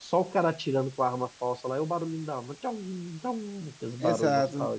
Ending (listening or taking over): taking over